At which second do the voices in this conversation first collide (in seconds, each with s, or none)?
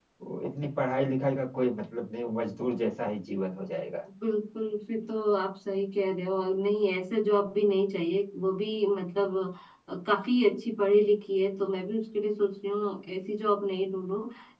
none